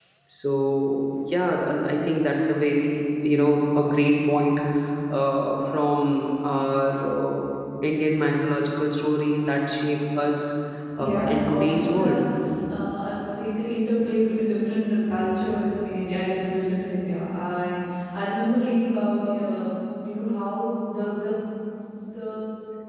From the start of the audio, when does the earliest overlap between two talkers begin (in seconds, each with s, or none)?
11.0 s